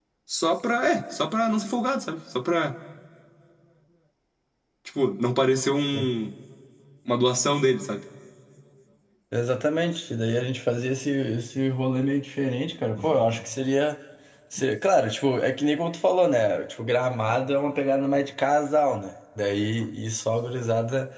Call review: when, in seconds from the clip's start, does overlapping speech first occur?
none

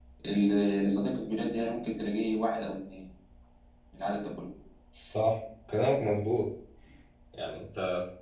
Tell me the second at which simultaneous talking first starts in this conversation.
none

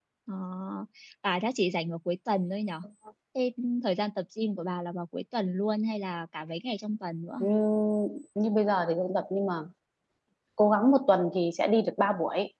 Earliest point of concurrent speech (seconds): none

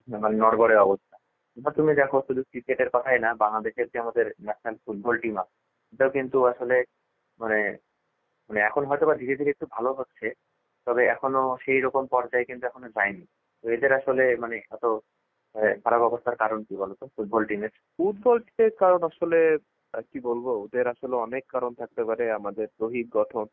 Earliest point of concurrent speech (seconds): none

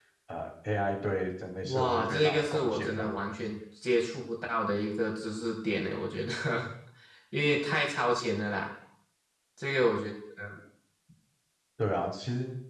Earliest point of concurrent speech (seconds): 1.6 s

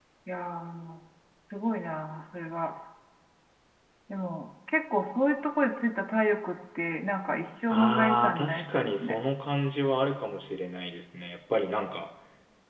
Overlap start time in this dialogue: 7.7 s

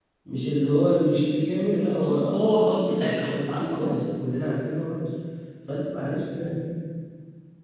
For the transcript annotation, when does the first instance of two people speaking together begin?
2.0 s

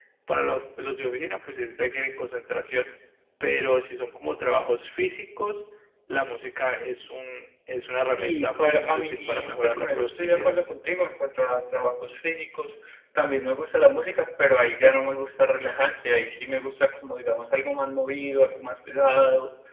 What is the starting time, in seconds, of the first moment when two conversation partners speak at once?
8.1 s

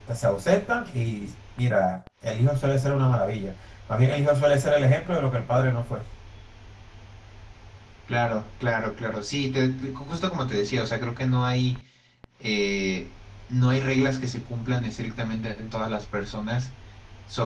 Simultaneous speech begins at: none

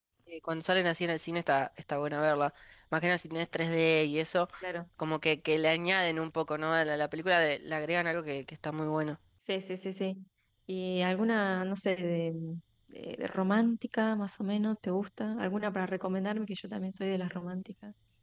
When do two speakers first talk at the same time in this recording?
none

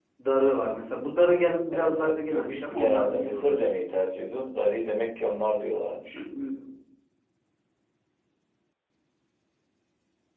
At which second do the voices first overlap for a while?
1.7 s

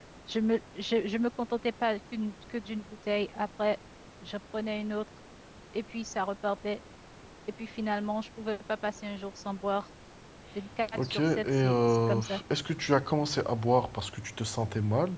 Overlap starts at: 11.0 s

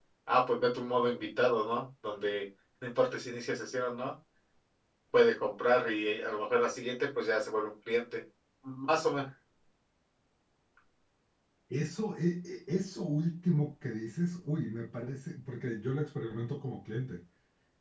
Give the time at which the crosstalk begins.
none

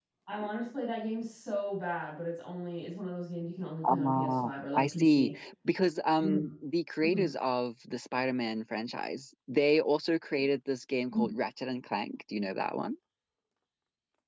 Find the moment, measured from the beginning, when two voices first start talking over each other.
3.8 s

